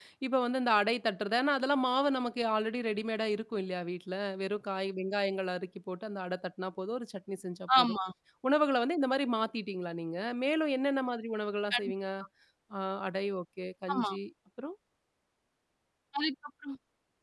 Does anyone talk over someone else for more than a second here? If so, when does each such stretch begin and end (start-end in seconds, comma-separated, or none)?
none